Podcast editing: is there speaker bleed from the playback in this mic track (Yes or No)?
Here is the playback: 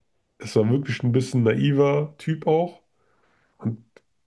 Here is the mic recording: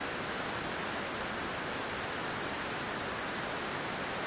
No